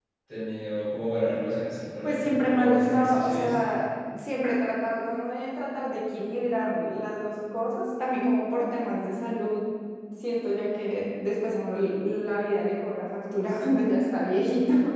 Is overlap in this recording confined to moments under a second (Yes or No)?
No